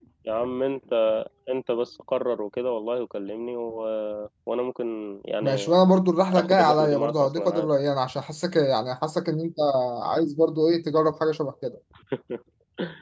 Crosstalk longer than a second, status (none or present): present